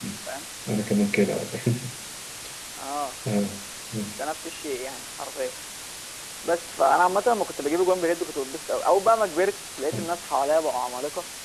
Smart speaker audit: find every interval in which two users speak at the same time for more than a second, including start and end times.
none

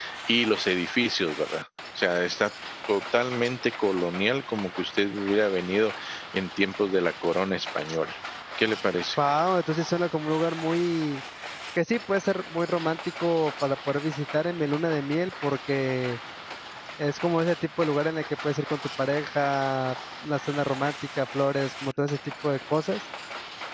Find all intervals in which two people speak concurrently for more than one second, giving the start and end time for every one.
none

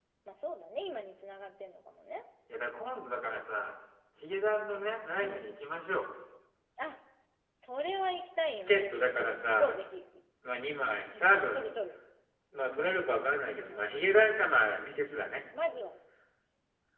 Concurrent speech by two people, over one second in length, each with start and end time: 8.5-9.8

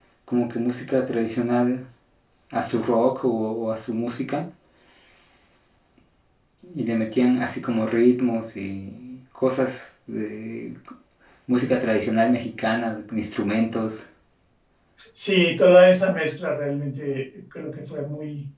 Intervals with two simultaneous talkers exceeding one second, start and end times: none

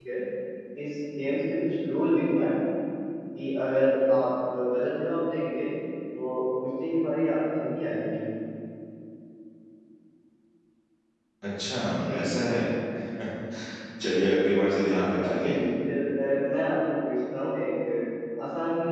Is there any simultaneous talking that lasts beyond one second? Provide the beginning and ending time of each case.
none

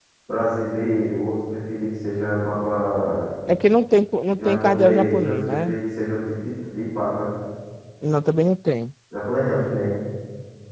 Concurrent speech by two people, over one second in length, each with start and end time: 4.4-5.8

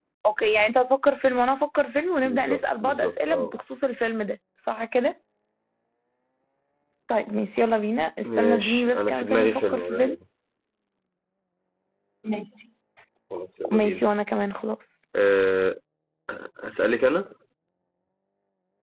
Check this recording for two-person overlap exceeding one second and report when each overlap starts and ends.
2.2-3.6, 8.2-10.2

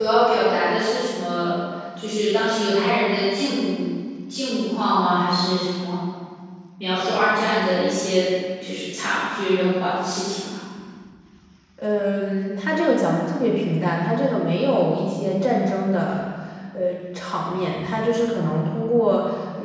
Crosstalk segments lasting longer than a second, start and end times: none

